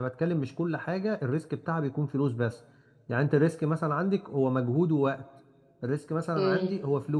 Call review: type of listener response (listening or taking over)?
listening